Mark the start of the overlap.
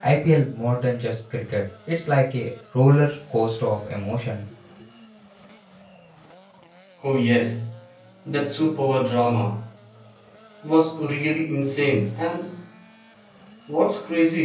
none

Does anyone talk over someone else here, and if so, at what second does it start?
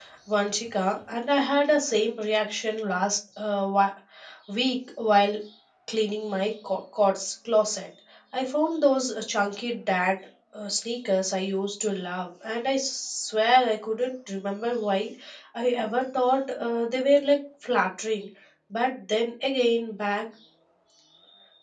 none

